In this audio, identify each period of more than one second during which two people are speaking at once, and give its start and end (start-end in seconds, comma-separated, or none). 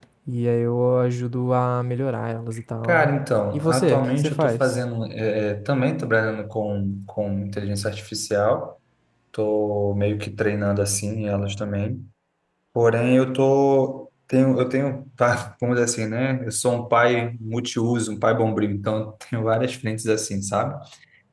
3.5-4.8